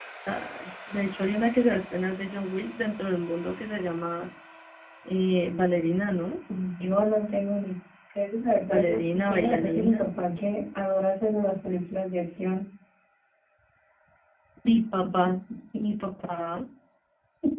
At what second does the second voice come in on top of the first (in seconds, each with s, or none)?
8.7 s